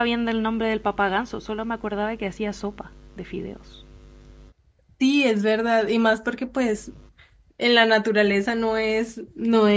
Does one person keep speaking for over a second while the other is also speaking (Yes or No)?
No